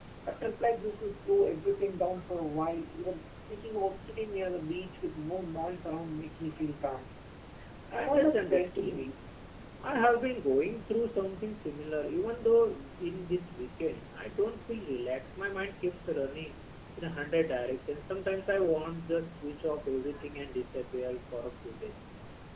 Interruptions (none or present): present